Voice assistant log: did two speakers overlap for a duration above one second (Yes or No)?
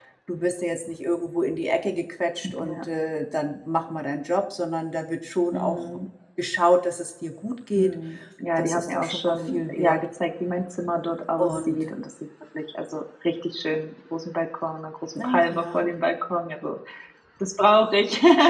Yes